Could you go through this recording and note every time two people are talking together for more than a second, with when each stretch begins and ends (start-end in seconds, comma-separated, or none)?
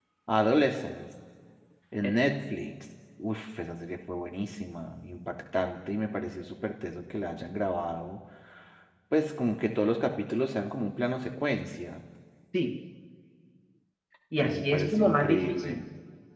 14.4-15.8